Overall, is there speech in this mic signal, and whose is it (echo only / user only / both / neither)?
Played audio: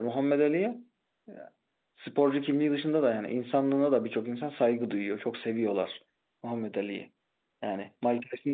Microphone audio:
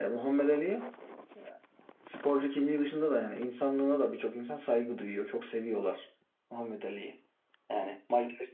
echo only